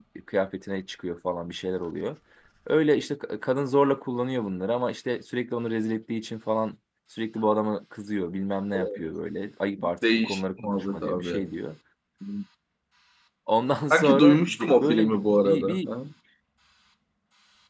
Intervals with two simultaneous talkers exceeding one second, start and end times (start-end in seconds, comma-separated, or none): 10.0-11.4, 13.9-15.9